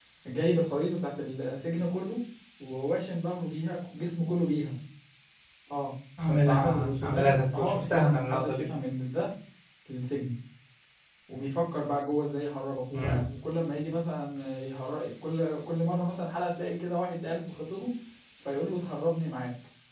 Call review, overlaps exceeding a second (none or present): present